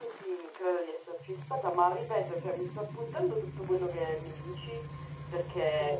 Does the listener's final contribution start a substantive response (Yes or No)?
No